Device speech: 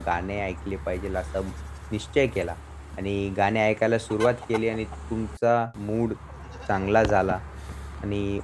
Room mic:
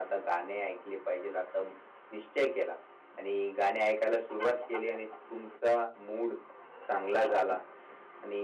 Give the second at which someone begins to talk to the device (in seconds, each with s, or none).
none